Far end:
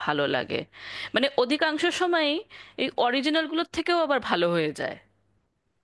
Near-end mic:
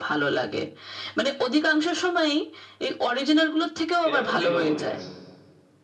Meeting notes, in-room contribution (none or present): present